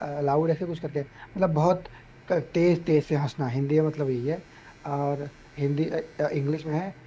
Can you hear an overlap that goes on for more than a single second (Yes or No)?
No